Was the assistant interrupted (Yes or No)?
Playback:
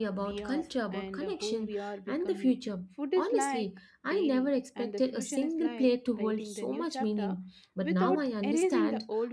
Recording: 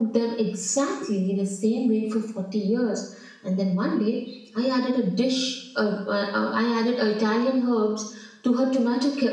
Yes